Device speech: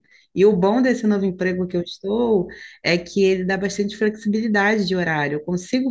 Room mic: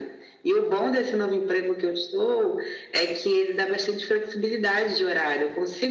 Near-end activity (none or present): none